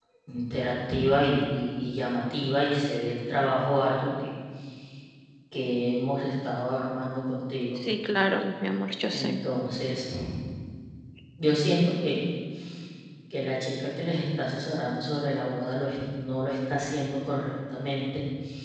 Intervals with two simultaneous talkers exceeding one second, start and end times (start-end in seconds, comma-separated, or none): none